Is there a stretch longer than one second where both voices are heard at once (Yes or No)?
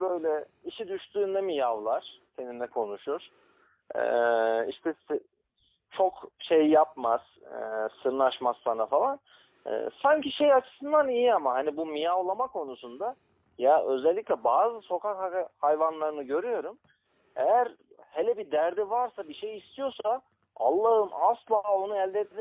No